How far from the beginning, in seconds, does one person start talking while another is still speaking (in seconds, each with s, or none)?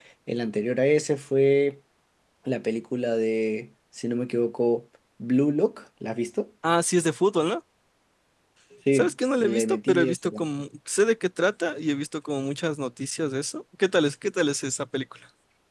8.9 s